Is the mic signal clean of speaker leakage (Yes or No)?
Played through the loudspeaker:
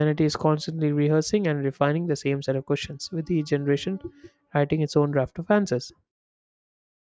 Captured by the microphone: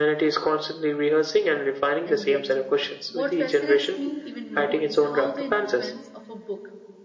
No